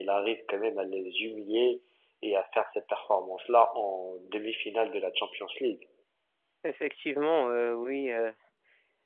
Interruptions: none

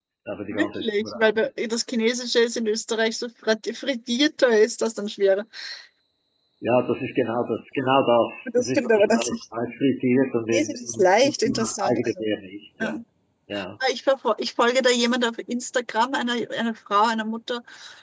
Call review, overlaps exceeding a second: present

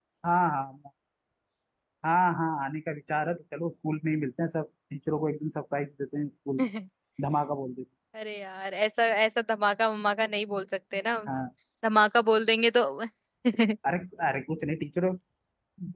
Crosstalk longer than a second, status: none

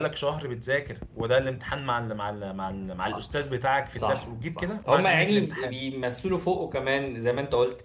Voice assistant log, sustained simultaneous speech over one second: present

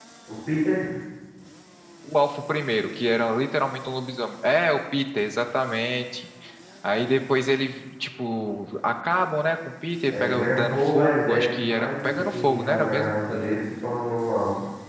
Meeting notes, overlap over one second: present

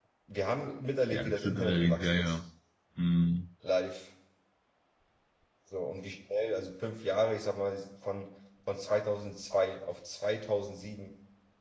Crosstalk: present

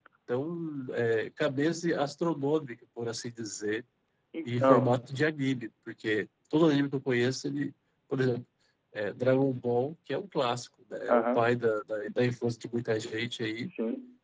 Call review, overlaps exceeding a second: none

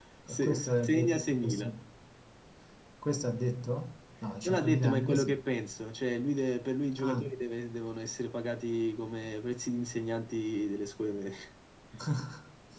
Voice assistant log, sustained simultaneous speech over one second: present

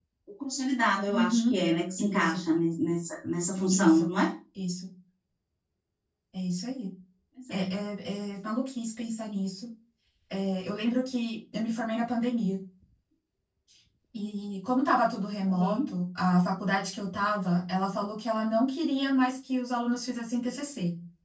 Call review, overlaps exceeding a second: none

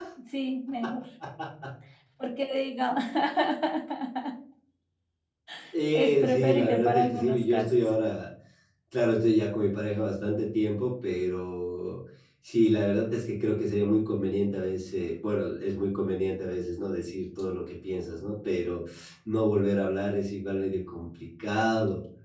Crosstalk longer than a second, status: present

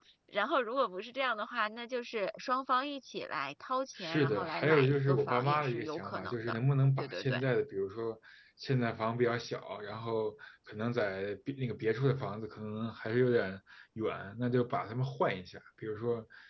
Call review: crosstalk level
present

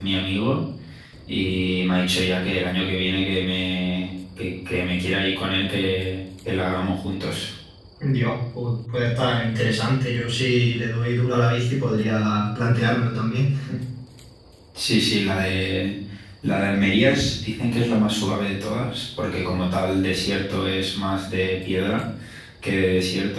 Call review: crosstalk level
none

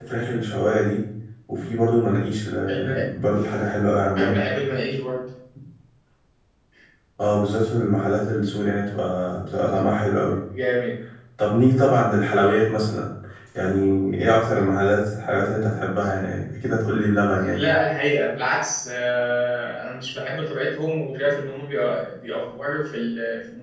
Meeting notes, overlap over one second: none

